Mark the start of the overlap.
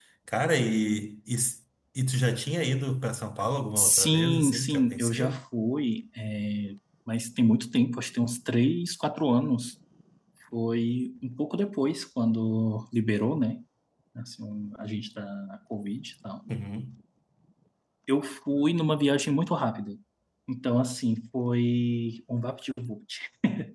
4 s

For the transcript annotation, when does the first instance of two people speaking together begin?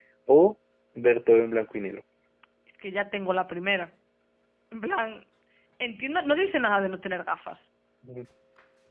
none

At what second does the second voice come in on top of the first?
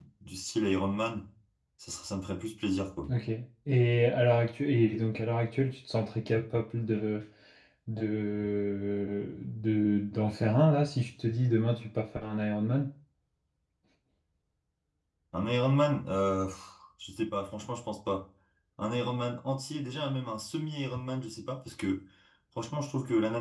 none

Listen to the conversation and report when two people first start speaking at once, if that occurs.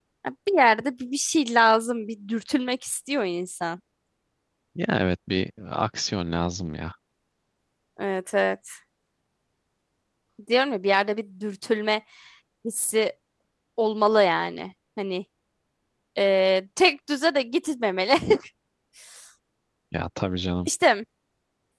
none

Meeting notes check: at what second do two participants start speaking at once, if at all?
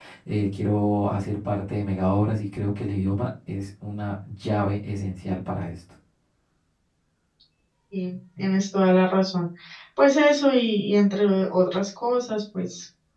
none

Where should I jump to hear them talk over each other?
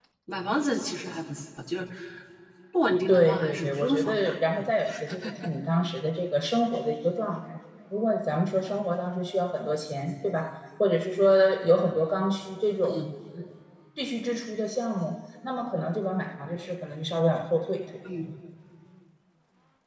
3 s

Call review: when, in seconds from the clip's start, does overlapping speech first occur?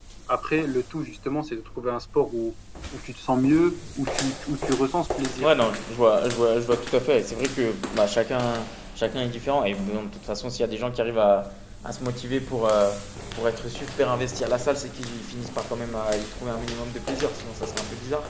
none

